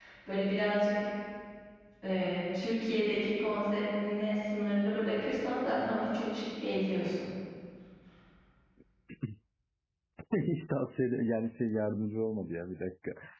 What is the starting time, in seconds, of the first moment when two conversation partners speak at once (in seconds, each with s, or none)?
none